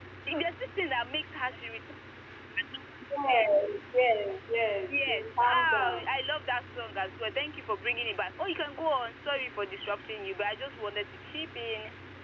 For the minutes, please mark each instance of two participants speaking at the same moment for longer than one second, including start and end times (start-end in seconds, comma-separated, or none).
4.9-6.2